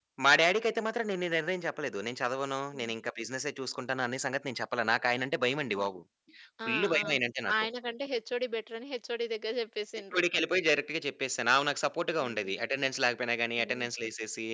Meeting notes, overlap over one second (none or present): none